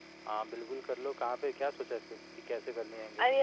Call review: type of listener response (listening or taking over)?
taking over